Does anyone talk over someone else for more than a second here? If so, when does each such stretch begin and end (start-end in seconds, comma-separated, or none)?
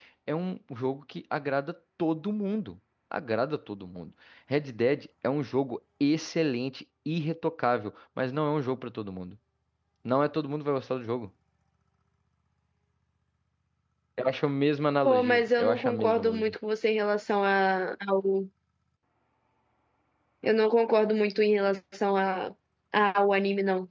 15.0-16.5